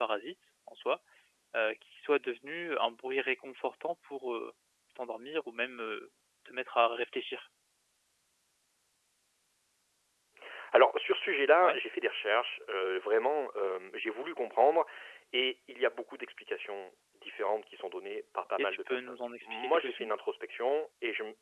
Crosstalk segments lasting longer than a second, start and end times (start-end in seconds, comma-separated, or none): 18.6-20.1